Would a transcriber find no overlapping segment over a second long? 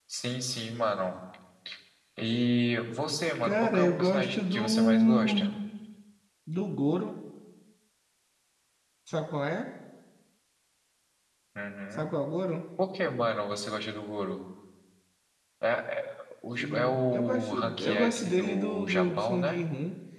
No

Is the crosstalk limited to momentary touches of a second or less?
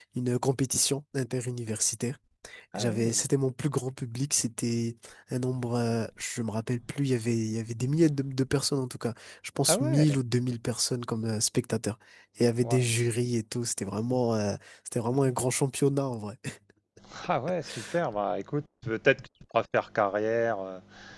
Yes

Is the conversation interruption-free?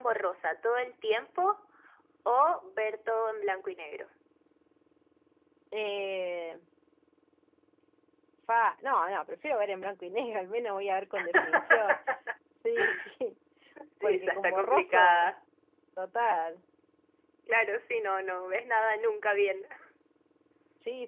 No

